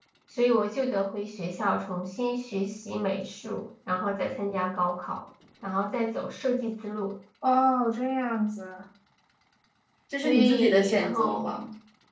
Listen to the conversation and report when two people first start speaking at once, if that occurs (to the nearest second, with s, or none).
10 s